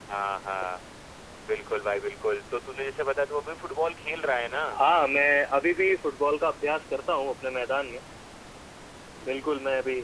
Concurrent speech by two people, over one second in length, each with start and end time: none

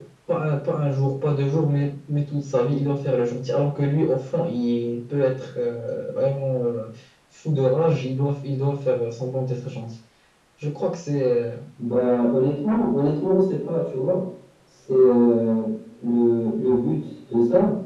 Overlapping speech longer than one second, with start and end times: none

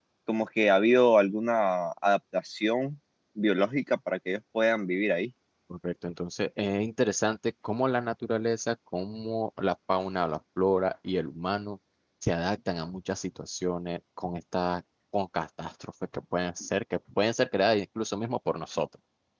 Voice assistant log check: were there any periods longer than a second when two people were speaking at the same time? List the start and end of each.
none

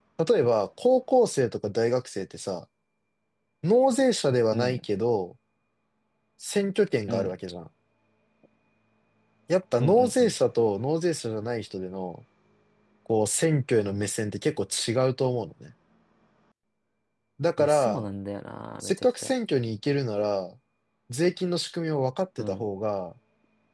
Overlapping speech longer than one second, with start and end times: none

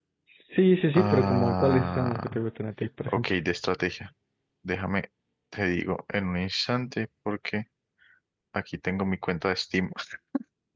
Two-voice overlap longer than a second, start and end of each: 0.9-2.4

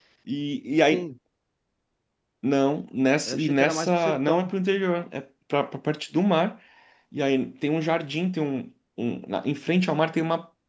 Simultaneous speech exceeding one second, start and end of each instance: 3.3-4.5

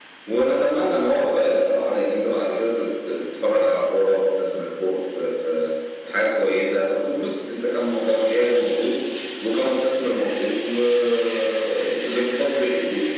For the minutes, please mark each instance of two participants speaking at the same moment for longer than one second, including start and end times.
none

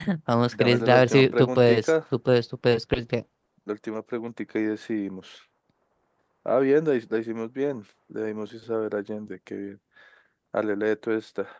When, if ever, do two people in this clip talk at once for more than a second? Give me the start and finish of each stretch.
0.5-1.9

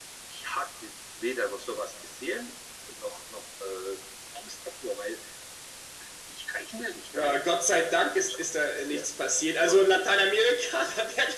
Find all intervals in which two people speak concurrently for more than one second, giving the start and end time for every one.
7.8-9.1

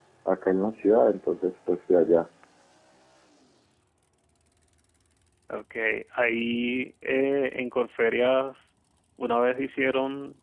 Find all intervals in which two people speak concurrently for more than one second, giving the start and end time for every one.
none

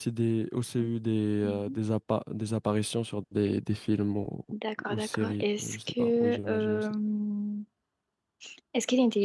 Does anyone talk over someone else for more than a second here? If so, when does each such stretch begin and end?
4.9-6.8

